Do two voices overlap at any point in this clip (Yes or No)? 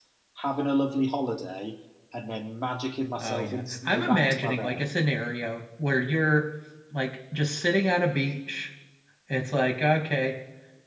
Yes